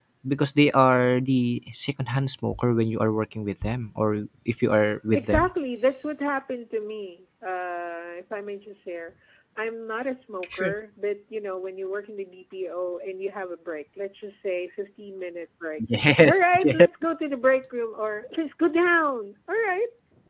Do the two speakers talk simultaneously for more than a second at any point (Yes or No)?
No